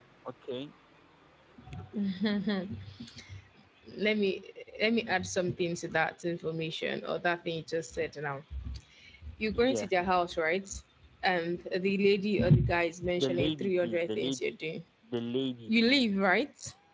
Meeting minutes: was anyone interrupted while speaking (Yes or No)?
Yes